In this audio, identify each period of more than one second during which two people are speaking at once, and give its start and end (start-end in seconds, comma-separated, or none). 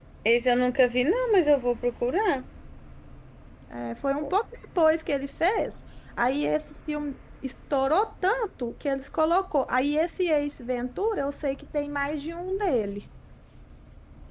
none